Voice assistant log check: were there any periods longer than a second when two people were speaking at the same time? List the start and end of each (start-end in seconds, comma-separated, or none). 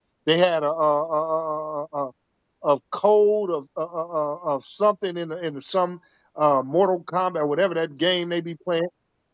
none